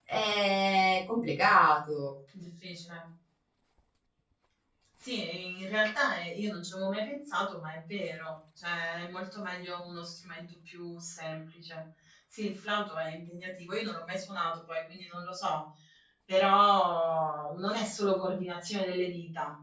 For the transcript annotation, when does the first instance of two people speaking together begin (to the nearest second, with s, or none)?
none